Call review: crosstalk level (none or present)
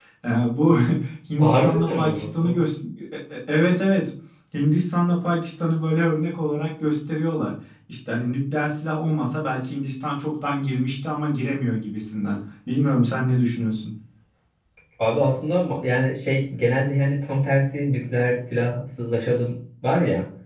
present